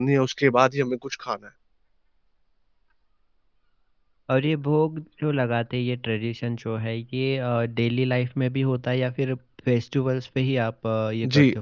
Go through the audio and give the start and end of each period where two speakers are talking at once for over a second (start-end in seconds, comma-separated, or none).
none